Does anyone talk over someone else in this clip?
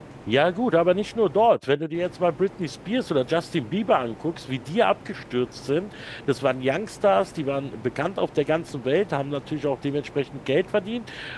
No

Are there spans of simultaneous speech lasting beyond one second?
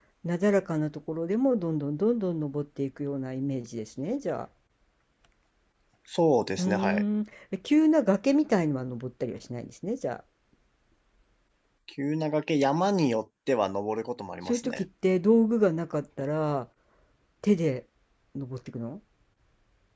No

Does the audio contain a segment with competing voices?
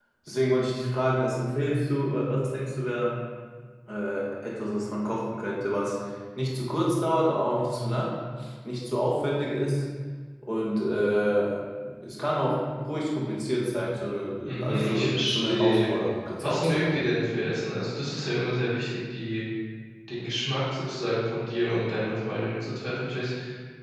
Yes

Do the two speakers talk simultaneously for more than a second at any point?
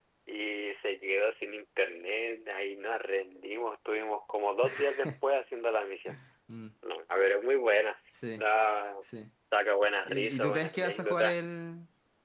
Yes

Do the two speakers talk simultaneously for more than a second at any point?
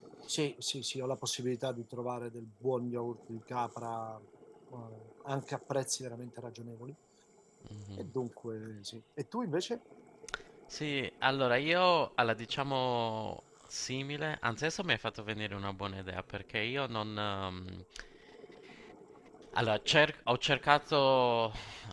No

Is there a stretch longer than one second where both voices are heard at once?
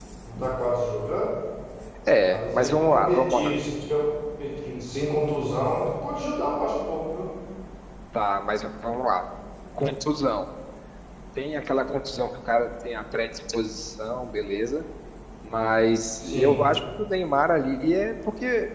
Yes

